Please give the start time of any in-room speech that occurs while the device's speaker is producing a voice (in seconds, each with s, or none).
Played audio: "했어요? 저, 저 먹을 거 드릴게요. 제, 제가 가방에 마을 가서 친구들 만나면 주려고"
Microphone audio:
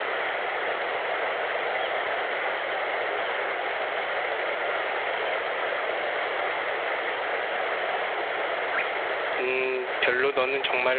9.4 s